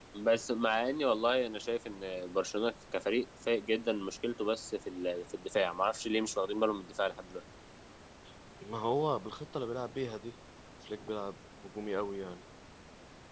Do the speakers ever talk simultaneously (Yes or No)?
No